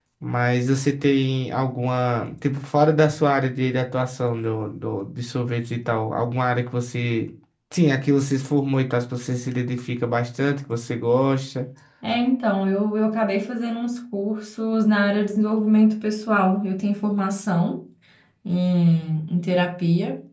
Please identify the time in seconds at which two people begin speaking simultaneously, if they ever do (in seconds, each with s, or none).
none